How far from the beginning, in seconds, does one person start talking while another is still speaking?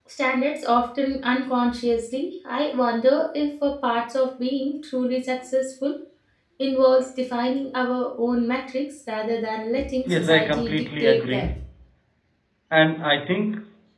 10.1 s

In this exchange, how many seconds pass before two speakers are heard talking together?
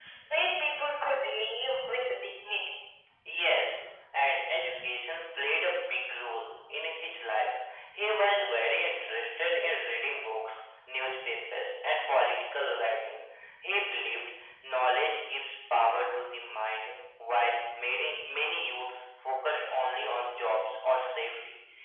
none

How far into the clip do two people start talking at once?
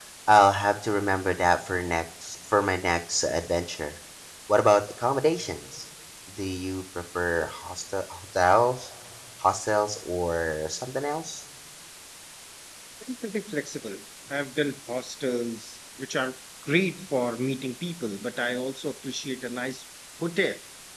none

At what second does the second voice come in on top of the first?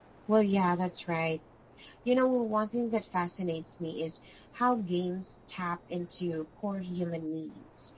none

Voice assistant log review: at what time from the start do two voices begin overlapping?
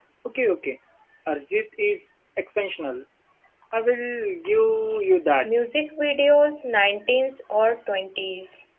none

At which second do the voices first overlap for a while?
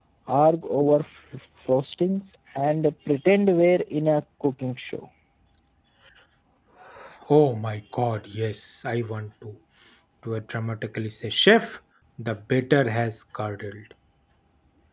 none

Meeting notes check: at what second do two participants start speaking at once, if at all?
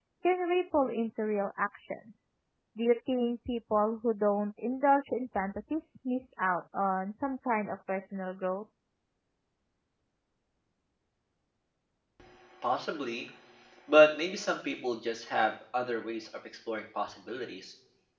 none

